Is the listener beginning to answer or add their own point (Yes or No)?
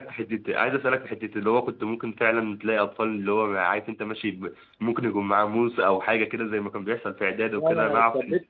Yes